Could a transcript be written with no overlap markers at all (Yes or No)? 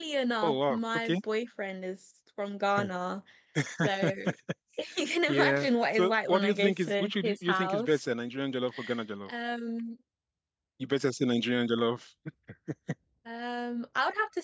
No